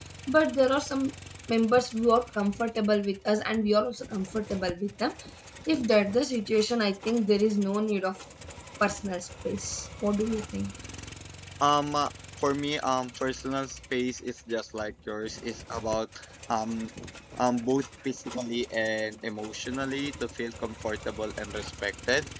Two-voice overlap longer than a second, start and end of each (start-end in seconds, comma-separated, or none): none